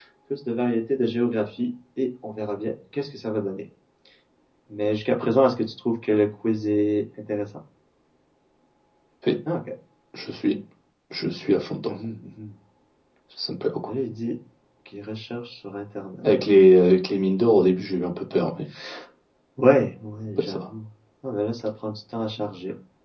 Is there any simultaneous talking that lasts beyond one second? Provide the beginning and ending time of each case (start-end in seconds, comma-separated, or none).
none